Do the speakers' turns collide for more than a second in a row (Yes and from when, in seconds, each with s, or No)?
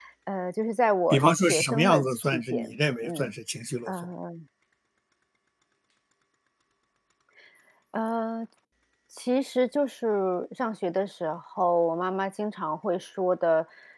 Yes, from 1.1 s